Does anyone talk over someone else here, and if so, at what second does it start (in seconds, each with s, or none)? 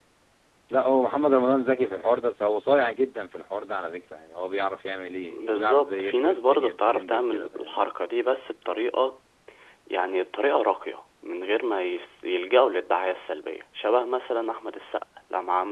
5.3 s